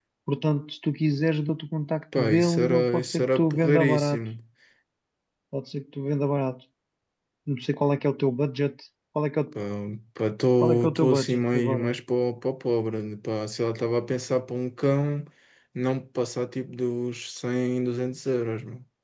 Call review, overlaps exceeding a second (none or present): present